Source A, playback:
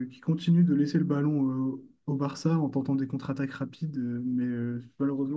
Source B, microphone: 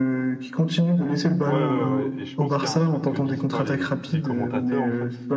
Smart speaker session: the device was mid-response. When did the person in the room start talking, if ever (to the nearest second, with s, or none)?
1 s